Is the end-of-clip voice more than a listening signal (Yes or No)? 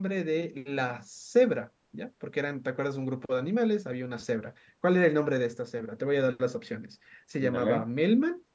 No